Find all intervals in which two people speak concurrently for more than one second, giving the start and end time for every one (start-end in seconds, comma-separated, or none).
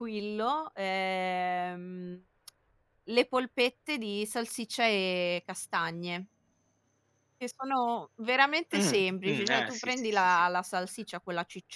8.7-10.4